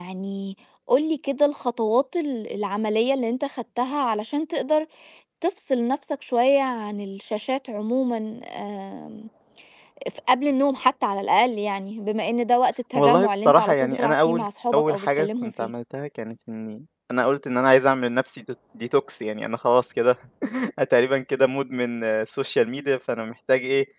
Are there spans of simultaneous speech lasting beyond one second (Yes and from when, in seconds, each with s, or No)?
Yes, from 12.9 s